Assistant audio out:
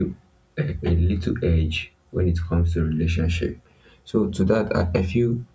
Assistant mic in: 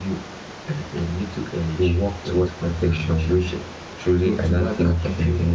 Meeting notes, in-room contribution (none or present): present